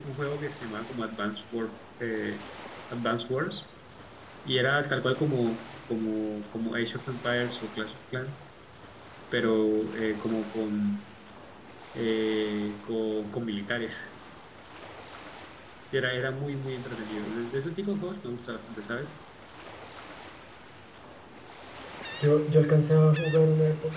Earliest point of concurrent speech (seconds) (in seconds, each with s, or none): none